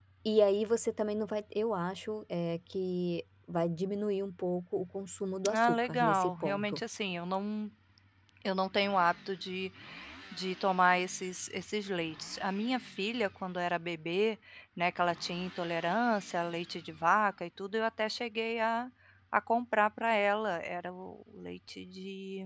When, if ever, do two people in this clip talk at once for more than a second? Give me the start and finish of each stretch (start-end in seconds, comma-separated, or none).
5.5-6.8